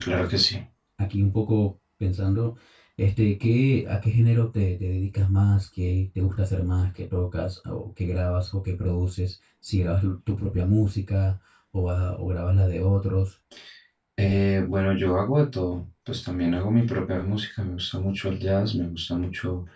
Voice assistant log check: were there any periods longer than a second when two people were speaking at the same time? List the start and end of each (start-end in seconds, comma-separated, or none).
none